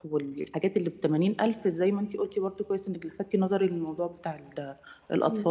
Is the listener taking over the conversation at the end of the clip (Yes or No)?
Yes